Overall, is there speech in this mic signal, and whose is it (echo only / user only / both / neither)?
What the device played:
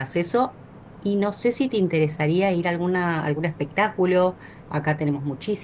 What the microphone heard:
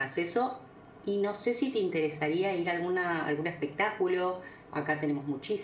echo only